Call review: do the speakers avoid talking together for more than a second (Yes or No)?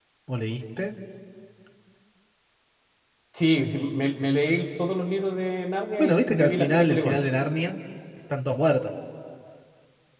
No